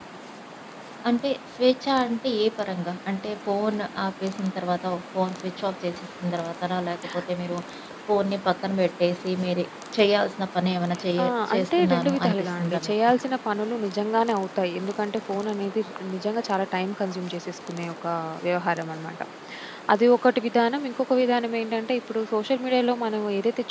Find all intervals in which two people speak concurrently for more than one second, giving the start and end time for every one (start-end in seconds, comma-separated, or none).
11.2-12.9